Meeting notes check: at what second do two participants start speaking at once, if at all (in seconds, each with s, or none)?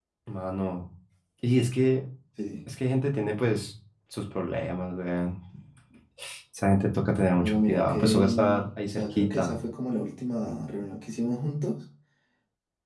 7.4 s